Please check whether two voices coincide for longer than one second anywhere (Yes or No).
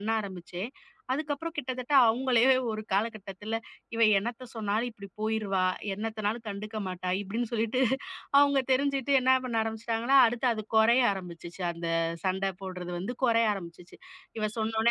No